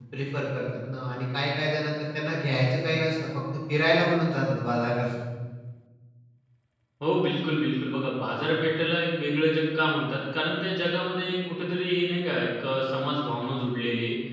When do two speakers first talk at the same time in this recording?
none

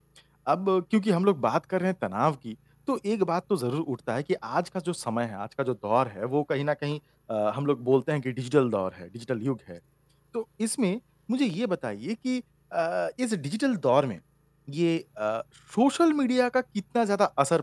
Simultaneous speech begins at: none

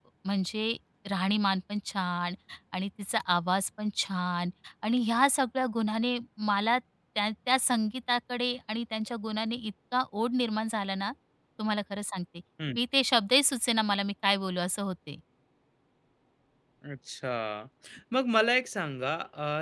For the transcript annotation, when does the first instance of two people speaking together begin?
none

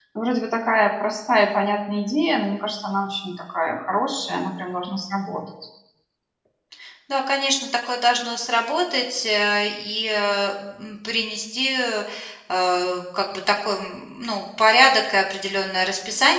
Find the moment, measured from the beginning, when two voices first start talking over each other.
none

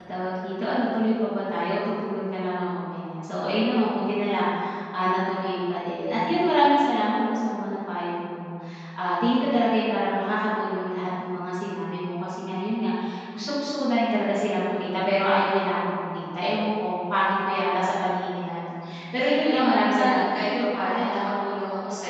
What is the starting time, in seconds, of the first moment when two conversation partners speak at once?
18.8 s

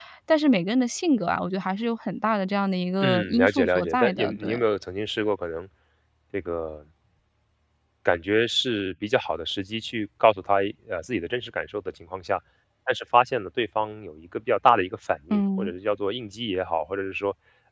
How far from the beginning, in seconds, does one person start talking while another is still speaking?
3.0 s

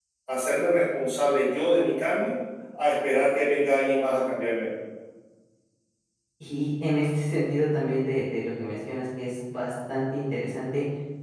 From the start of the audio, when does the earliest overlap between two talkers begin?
none

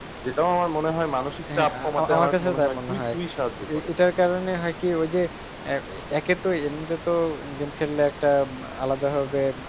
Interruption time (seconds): 1.5 s

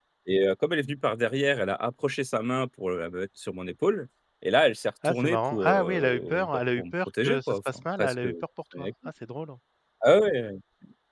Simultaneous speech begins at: 5.0 s

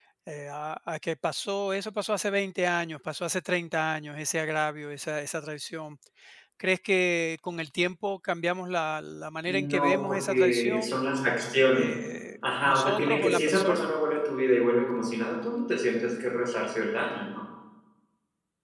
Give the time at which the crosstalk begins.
9.5 s

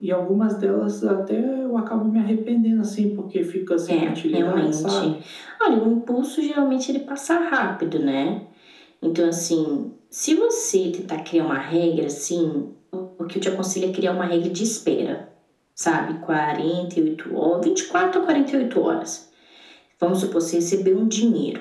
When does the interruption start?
3.9 s

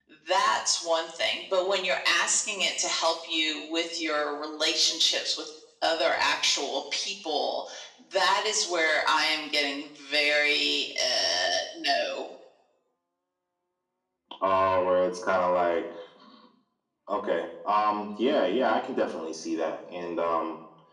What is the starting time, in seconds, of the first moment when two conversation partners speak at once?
none

